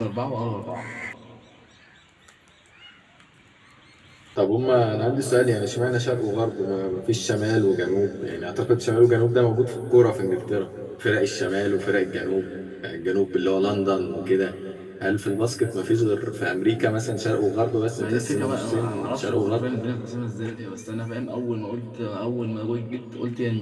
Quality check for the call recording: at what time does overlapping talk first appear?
18 s

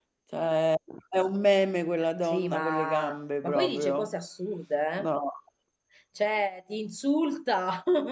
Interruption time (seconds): 2 s

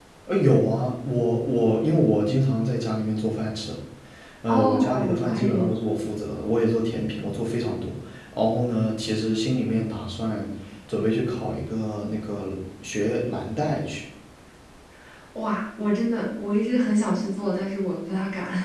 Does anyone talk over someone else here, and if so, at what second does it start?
4 s

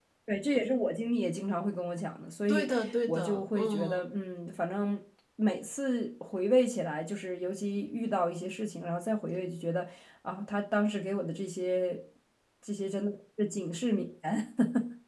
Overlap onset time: 2 s

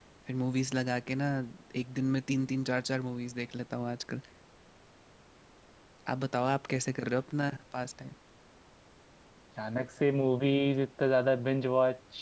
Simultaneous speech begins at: none

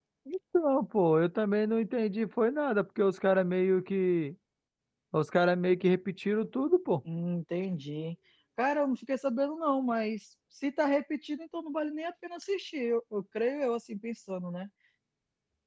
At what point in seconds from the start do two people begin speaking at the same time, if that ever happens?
none

